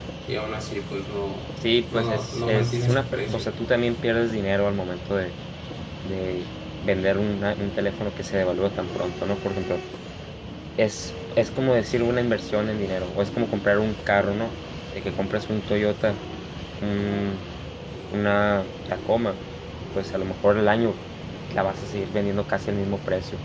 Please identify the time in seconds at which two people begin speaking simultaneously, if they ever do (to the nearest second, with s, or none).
2 s